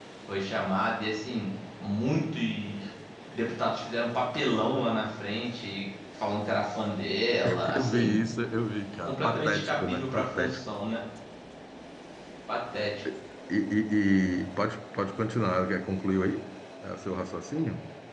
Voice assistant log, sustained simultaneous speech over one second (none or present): present